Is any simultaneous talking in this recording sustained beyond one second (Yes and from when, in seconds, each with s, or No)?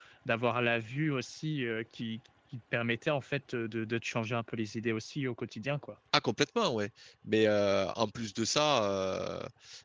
No